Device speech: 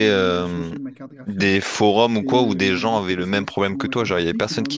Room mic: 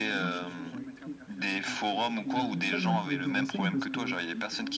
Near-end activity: present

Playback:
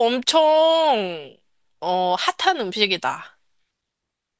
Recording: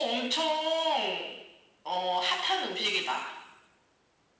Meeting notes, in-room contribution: none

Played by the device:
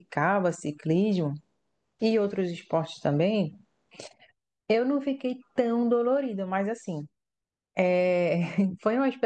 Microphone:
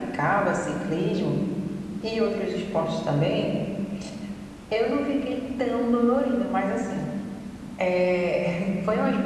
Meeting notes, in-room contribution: none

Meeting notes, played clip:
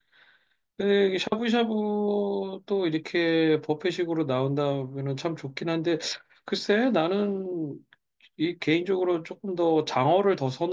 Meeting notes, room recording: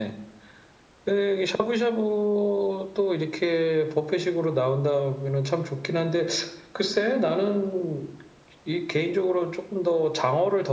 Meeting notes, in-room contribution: none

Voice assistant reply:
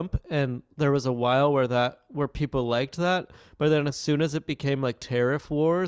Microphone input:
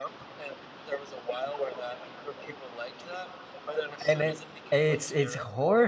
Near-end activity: present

